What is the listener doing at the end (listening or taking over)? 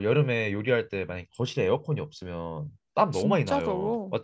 taking over